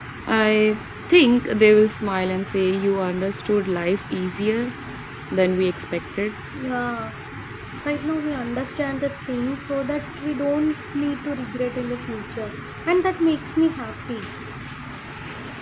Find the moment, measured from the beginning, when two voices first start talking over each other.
none

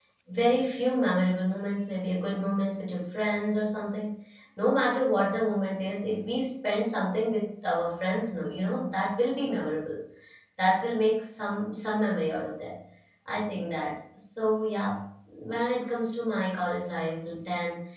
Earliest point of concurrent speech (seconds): none

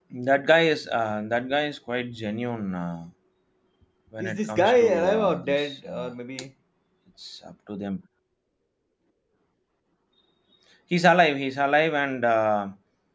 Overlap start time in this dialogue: 4.2 s

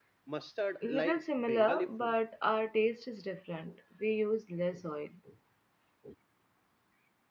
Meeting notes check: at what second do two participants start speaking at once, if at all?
0.9 s

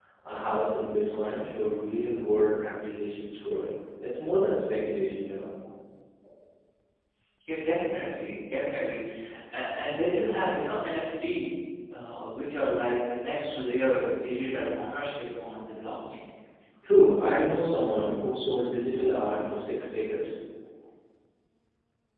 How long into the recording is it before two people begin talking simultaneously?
none

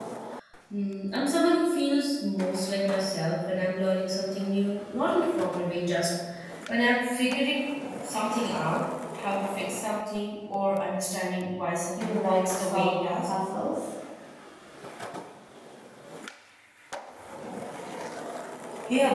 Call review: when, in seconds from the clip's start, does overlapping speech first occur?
12.0 s

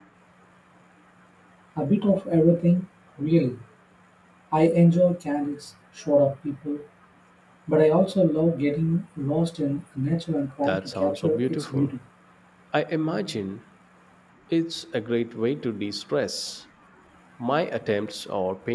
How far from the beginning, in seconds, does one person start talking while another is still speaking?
10.6 s

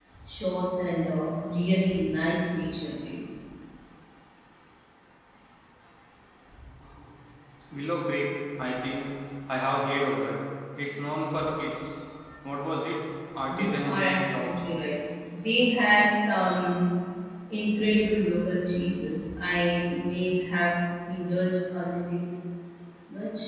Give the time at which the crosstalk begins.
13.3 s

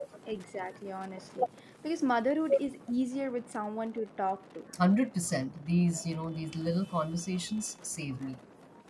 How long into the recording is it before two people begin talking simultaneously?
none

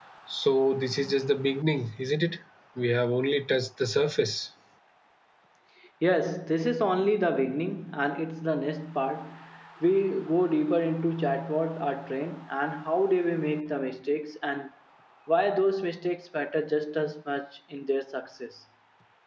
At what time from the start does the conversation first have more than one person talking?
none

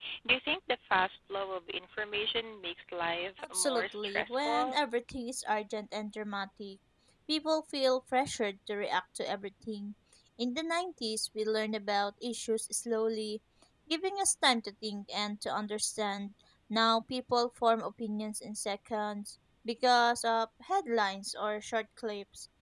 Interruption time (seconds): 3.4 s

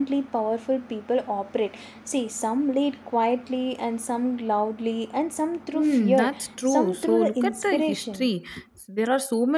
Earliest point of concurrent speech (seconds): 5.7 s

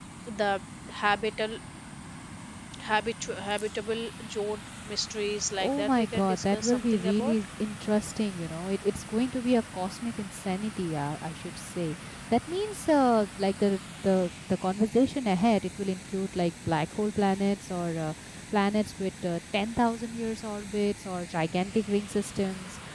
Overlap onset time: 5.6 s

